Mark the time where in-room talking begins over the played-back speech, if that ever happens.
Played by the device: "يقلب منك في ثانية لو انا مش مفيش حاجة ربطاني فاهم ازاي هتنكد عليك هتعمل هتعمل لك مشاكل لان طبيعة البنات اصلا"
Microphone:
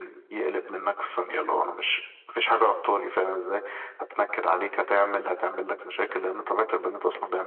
none

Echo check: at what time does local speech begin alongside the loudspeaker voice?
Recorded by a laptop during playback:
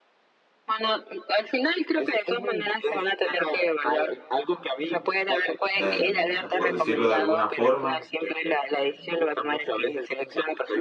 5.7 s

